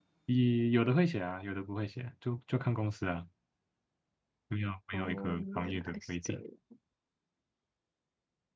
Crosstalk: present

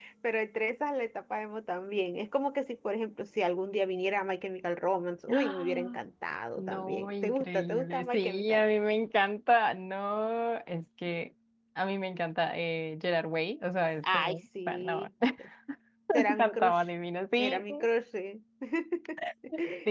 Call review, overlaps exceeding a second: present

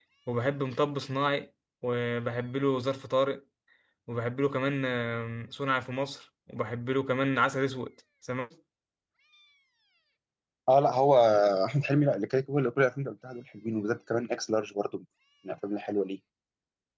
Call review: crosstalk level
none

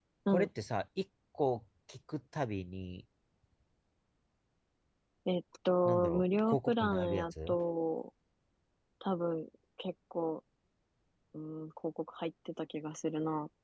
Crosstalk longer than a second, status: present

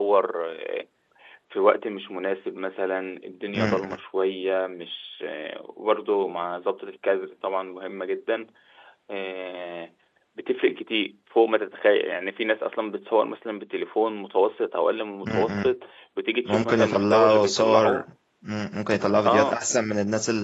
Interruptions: present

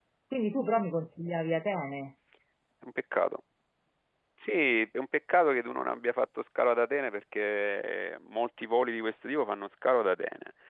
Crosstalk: none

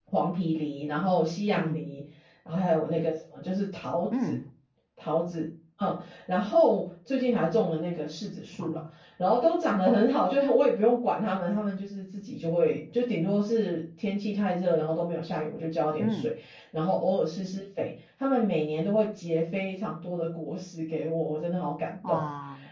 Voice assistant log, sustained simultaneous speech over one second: none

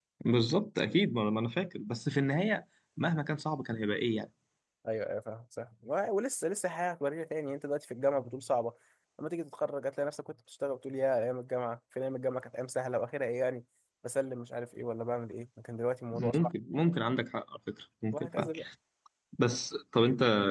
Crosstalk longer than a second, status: none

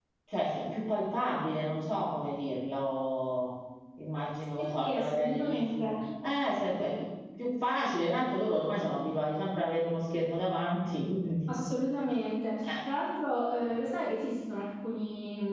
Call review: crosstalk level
present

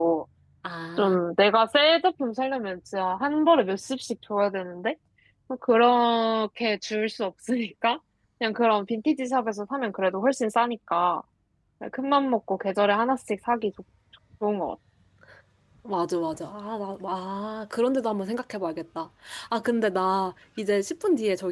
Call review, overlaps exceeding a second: none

